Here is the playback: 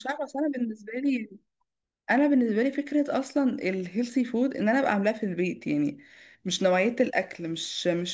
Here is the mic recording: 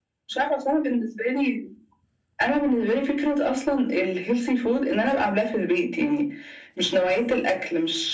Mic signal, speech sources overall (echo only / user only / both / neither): echo only